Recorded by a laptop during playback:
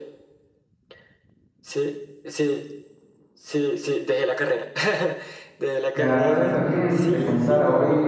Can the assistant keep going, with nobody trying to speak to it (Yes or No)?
No